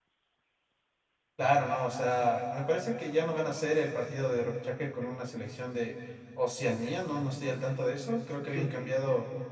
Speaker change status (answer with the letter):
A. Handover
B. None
B